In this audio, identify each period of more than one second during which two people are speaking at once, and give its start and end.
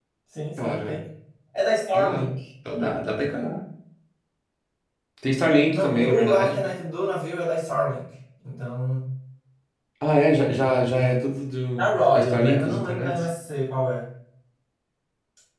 5.4-6.6, 11.8-13.2

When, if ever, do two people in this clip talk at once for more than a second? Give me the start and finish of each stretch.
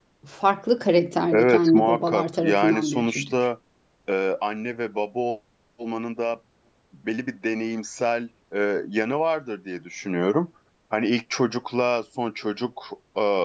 1.3-3.3

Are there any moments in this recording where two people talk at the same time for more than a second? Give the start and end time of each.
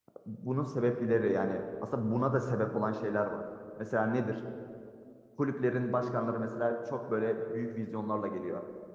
none

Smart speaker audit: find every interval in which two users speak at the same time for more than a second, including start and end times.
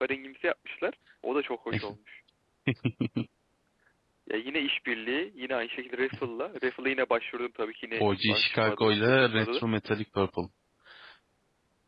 7.9-9.6

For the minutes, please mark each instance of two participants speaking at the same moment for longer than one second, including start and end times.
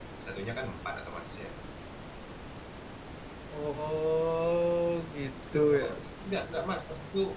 none

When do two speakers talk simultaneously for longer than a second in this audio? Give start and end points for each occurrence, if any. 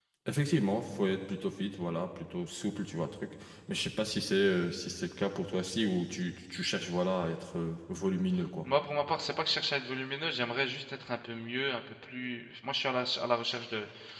none

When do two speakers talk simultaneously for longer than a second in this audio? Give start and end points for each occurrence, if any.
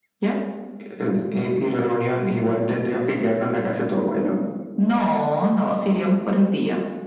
none

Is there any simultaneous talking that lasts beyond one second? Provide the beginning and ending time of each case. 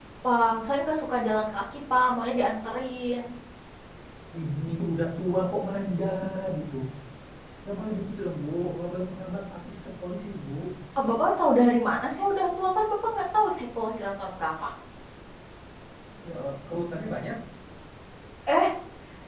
none

